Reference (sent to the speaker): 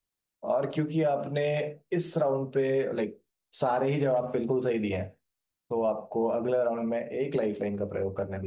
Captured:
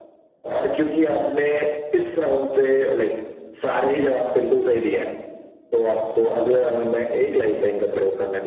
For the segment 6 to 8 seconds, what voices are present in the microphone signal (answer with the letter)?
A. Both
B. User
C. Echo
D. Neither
C